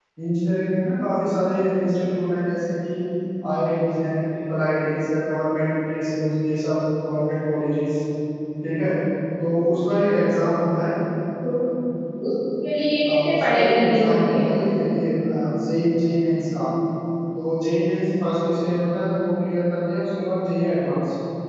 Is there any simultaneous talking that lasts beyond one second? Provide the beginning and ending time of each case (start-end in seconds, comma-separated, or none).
13.1-14.4